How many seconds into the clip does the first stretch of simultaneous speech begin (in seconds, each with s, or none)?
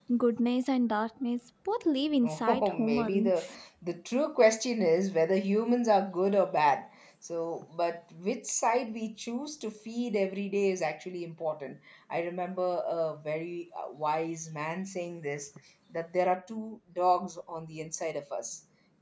2.2 s